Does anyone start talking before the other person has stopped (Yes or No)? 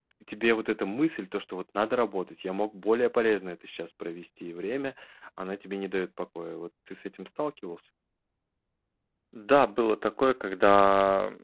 No